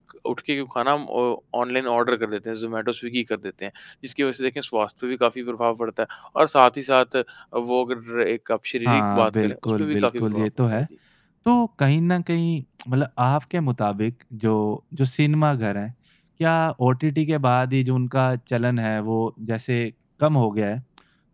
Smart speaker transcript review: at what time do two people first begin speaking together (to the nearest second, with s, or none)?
9 s